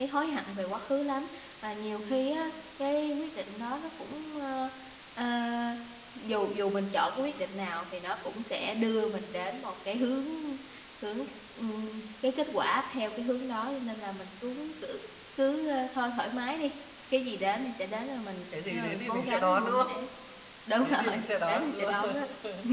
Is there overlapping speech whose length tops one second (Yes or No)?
Yes